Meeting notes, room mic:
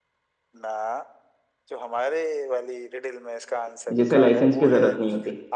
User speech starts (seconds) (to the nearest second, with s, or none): 4 s